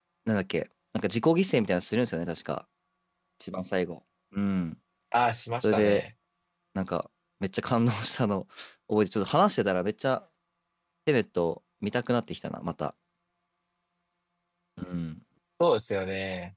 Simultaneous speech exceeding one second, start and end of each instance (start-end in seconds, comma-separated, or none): none